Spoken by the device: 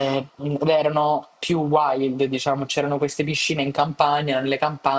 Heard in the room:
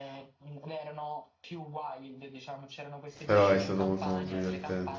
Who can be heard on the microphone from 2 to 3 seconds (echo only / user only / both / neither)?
echo only